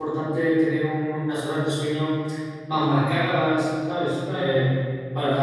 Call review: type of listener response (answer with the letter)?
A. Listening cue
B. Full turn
A